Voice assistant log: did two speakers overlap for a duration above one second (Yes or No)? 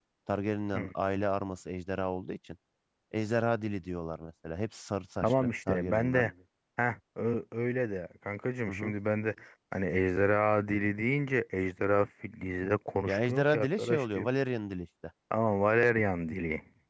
Yes